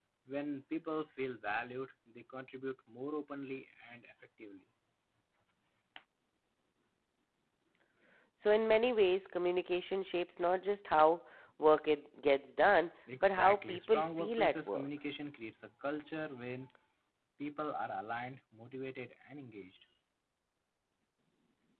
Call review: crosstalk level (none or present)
present